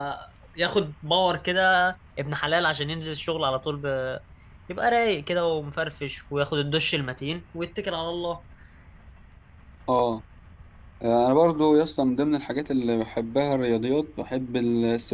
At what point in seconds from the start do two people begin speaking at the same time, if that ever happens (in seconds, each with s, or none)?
none